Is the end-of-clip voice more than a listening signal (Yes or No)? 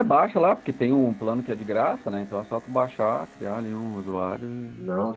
Yes